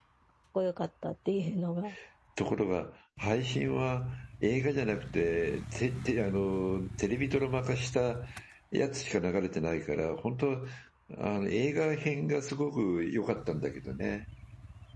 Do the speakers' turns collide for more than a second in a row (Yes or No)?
No